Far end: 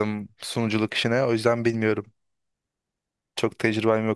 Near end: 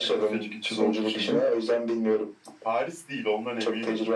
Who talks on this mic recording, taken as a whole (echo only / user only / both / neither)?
both